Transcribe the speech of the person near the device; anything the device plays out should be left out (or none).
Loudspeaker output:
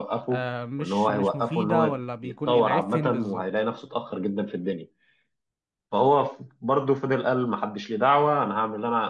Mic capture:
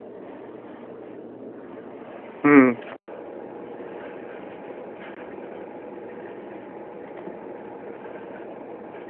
امم